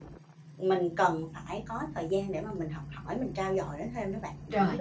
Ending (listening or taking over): taking over